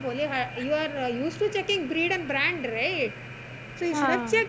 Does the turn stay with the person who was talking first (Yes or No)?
Yes